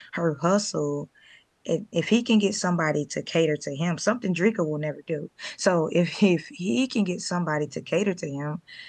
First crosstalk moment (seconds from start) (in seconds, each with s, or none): none